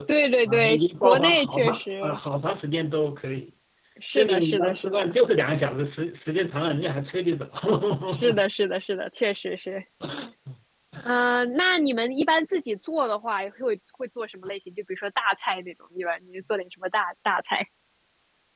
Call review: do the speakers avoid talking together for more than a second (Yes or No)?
No